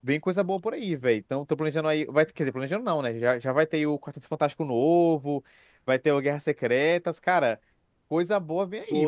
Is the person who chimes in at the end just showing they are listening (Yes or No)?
No